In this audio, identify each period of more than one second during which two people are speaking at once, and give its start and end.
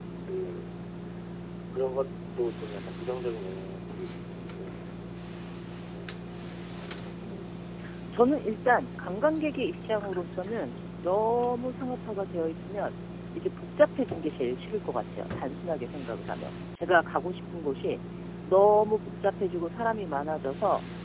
none

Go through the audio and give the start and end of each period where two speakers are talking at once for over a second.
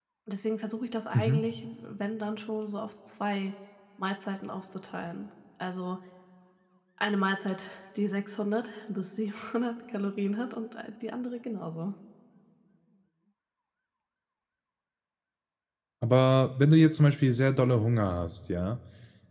none

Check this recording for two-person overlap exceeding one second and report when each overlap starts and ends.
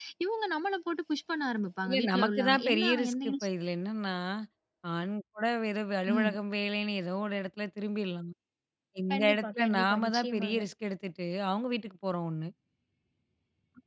1.9-3.5, 9.1-10.6

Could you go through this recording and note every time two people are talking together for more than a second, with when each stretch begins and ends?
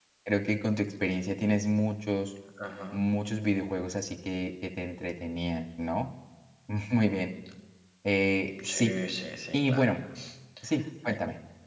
none

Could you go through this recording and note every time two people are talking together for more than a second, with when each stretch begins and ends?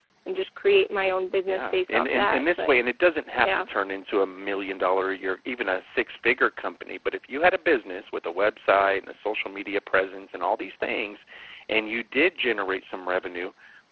1.5-2.7

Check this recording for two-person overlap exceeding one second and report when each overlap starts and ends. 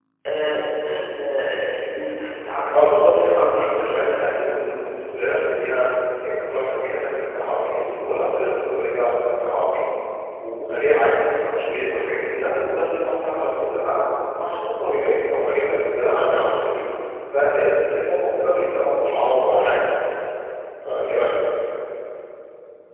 2.7-4.1

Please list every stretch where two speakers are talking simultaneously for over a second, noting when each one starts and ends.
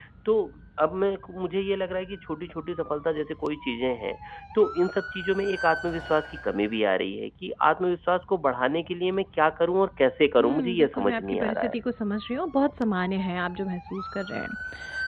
10.4-11.8

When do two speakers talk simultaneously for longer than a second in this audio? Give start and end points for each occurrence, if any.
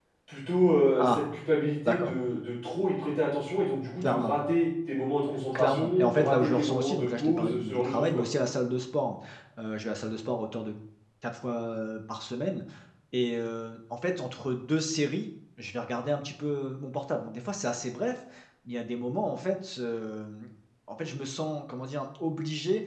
5.5-8.2

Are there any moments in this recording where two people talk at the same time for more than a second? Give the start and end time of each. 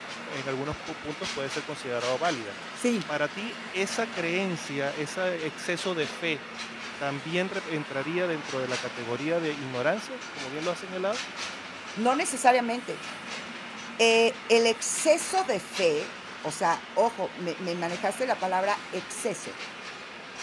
none

